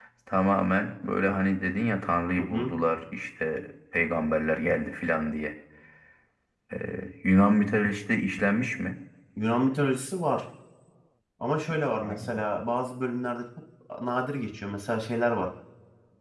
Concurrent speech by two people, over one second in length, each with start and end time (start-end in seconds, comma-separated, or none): none